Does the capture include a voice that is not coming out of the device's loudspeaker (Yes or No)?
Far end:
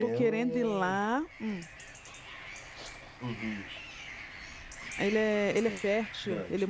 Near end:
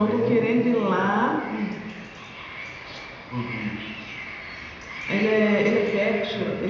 No